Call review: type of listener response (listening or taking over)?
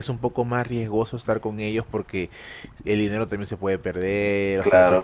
taking over